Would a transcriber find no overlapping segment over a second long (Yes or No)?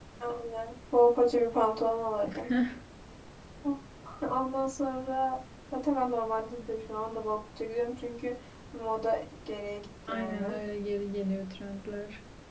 Yes